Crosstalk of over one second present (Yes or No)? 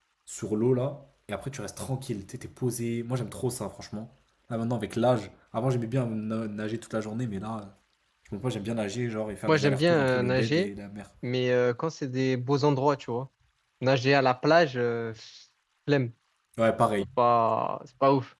Yes